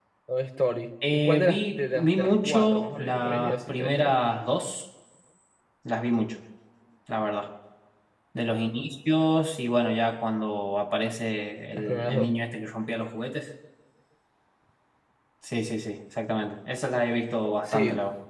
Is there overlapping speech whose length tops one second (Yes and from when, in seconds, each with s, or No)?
Yes, from 1.1 s